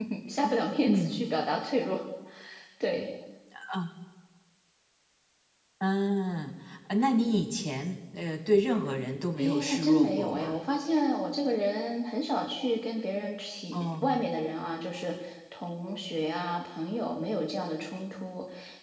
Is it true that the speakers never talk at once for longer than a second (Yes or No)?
No